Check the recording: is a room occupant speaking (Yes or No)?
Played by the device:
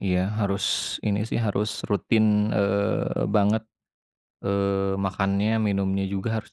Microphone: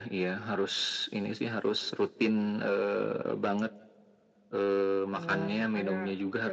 Yes